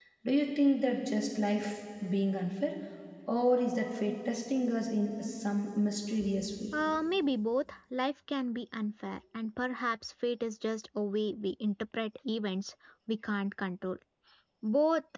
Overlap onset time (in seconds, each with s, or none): none